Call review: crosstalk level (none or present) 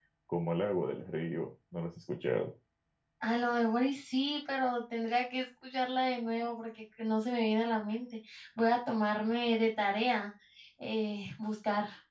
none